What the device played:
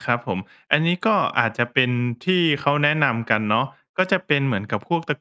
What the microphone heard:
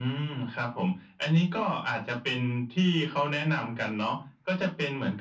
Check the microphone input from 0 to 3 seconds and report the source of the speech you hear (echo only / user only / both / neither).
echo only